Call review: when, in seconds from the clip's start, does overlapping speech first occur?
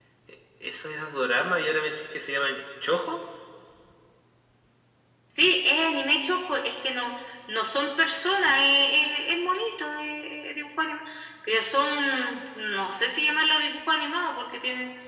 none

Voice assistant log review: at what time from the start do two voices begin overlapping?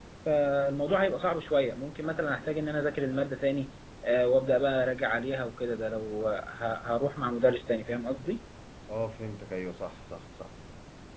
none

